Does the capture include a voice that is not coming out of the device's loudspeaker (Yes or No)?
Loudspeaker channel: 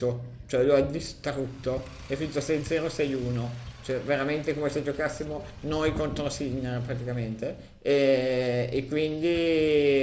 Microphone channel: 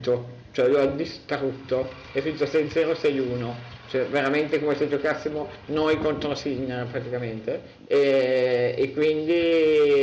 No